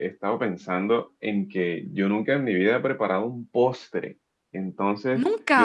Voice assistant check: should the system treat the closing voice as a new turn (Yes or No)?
No